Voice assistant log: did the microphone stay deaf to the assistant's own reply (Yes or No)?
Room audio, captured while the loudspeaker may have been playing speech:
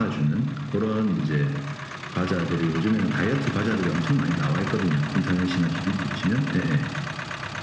No